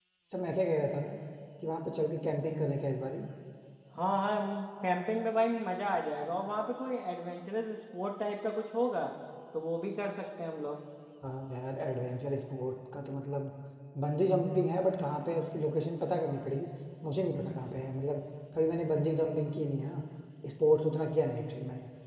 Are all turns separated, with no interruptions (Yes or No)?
Yes